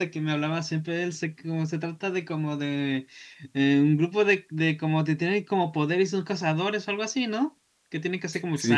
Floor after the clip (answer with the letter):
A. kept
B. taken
B